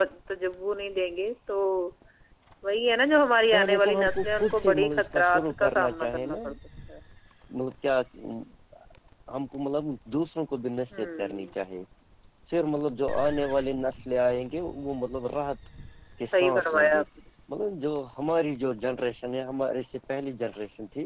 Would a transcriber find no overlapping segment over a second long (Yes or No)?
No